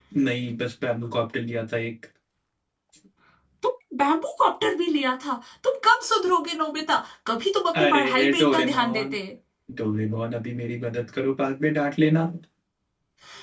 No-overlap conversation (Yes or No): No